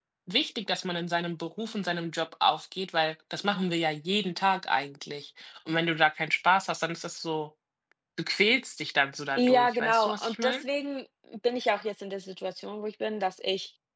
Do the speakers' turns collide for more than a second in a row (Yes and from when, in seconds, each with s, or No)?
Yes, from 9.3 s